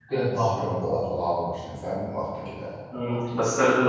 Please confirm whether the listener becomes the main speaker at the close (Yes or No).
Yes